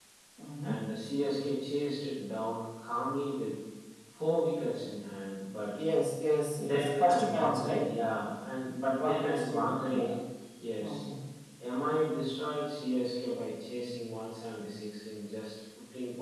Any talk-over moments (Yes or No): Yes